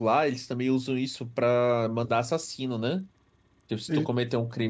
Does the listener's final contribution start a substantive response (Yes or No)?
No